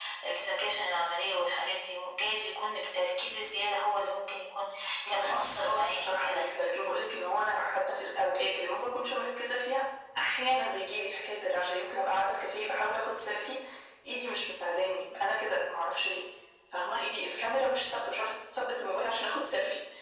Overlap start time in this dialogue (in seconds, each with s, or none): 5.1 s